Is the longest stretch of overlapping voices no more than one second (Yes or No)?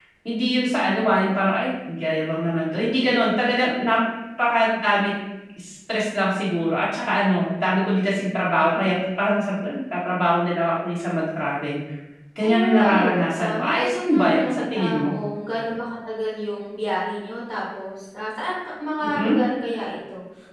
No